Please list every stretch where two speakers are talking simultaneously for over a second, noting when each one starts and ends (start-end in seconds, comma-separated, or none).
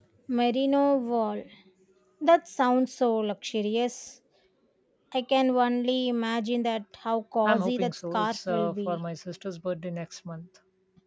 7.4-9.0